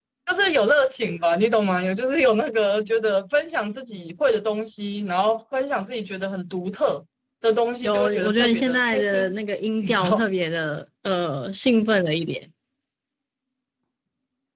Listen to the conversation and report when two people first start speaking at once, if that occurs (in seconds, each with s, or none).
7.8 s